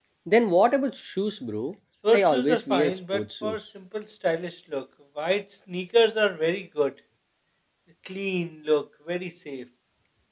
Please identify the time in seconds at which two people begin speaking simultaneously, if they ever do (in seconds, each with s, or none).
2.0 s